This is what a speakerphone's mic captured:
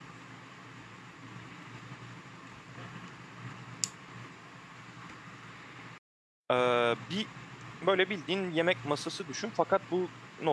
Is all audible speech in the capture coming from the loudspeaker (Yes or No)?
No